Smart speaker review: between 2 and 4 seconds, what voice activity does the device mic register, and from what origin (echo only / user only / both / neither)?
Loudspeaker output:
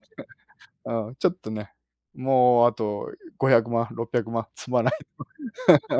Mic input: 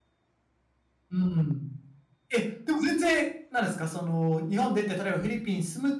user only